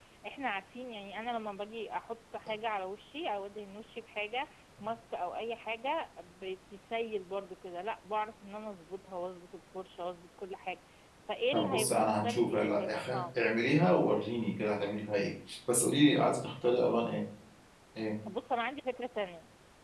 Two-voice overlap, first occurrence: 11.5 s

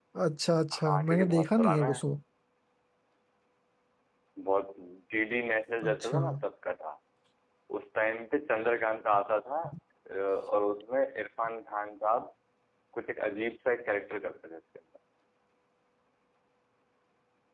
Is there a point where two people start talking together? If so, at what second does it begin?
0.7 s

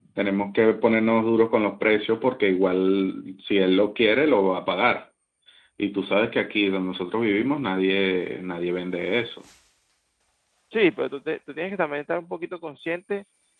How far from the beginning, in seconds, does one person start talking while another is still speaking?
none

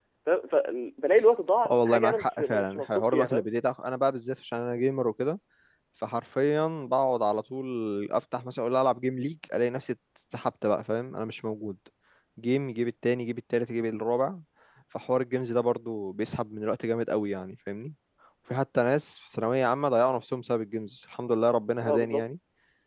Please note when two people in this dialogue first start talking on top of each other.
1.7 s

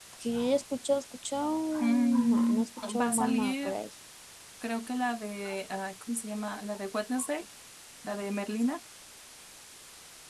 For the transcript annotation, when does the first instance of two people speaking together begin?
1.8 s

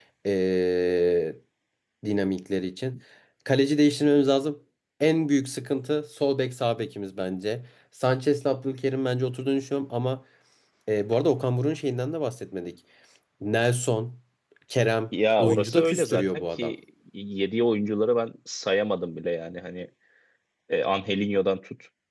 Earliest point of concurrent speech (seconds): 15.4 s

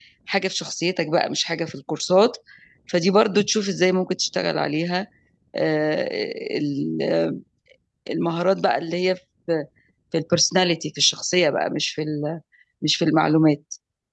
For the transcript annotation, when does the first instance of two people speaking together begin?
none

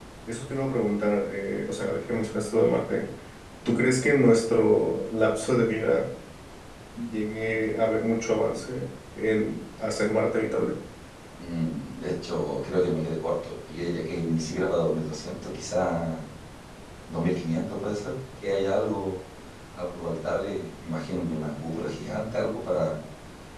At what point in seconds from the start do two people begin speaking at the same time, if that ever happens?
none

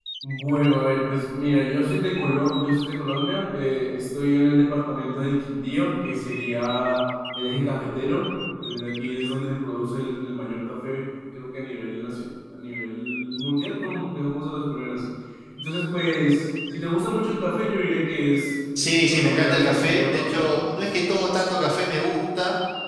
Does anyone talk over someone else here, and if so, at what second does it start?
18.8 s

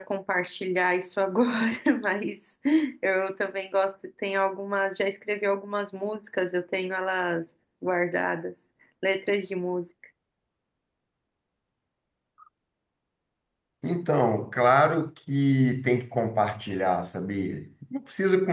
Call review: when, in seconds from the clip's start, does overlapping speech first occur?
none

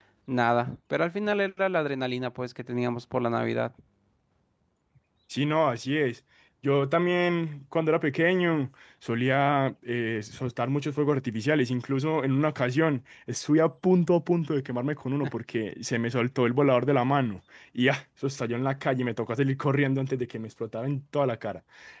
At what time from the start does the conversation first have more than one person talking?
none

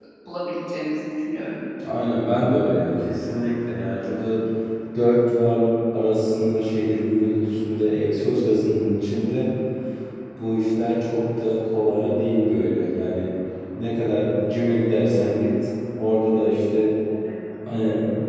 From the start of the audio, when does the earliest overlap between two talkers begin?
none

